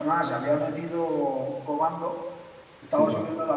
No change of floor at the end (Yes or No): Yes